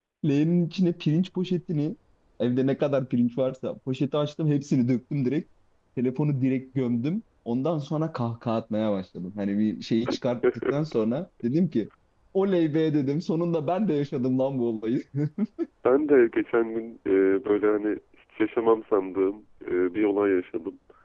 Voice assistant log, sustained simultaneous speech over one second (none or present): none